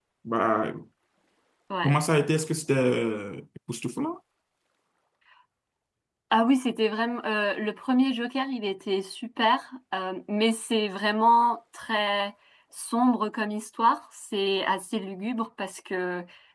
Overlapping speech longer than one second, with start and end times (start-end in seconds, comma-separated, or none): none